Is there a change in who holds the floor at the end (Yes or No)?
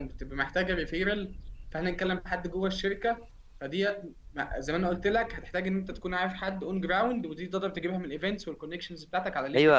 Yes